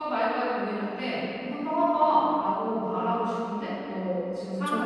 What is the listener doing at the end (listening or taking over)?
taking over